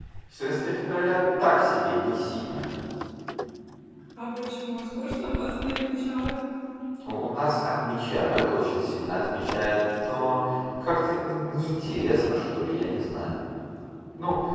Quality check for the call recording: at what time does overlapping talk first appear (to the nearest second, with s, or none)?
none